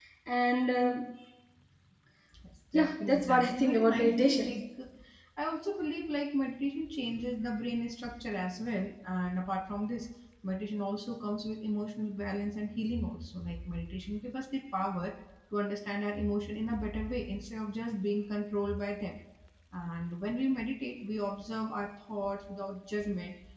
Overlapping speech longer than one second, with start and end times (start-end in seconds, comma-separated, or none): 2.7-4.5